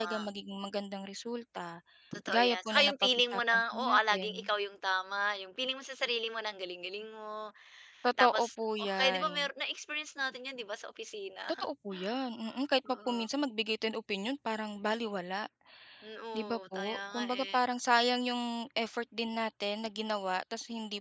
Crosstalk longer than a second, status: present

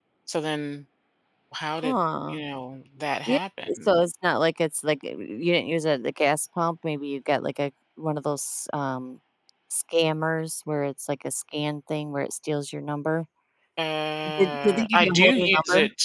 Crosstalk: present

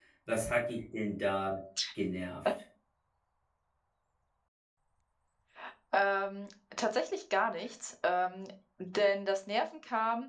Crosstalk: none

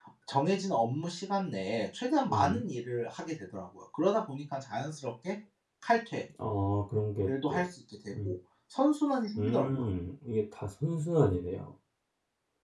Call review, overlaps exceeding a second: none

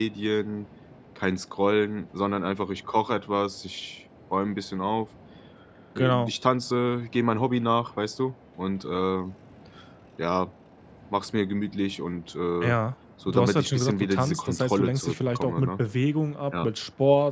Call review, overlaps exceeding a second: present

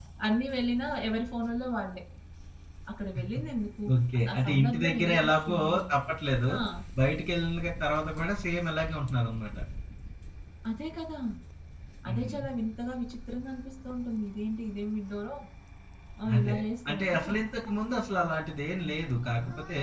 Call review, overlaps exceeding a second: present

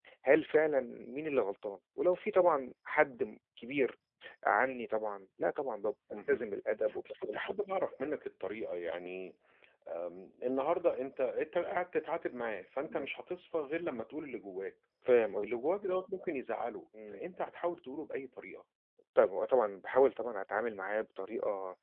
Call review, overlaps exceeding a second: none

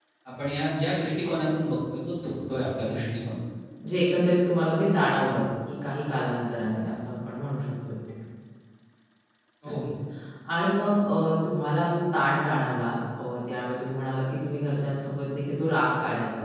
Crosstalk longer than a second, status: none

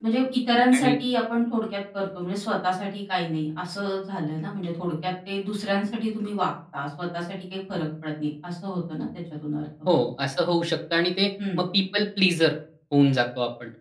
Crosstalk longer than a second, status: none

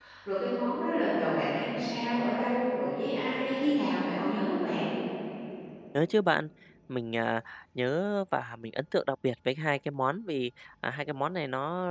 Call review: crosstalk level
none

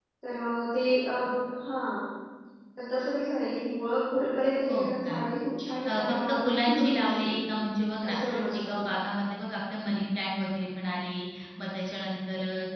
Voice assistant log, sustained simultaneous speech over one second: present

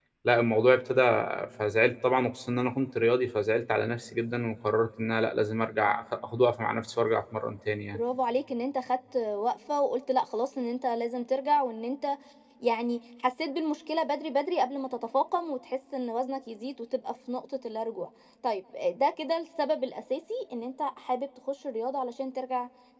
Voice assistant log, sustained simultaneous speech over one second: none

